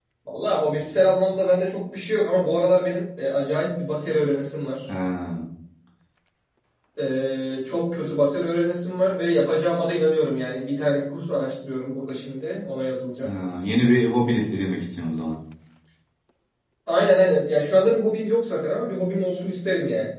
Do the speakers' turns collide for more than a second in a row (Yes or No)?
No